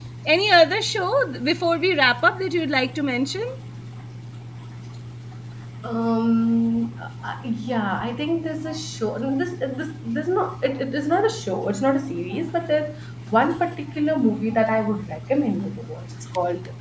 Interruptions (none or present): none